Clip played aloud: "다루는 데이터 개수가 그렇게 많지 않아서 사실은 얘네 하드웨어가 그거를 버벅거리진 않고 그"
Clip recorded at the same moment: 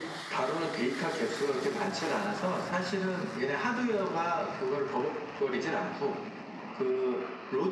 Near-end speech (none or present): none